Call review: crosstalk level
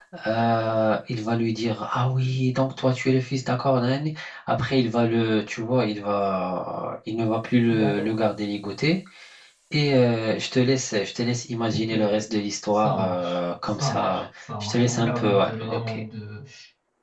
present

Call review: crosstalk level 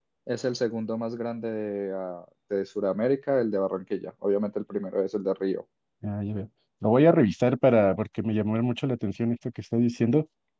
none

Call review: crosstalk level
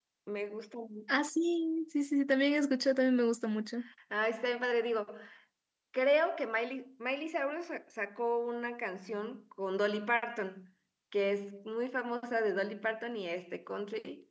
none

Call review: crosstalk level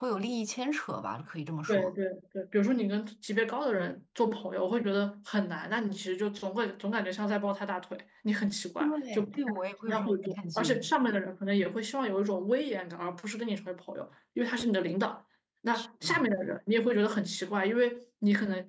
present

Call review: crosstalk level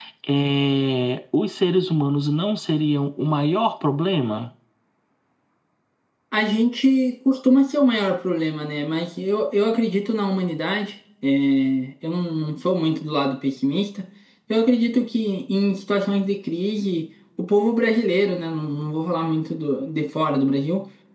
none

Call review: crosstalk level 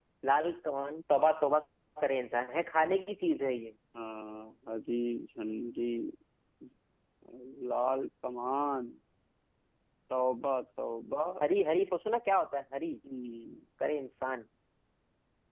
none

